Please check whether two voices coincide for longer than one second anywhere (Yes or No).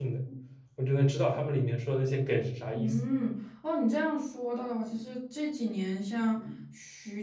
No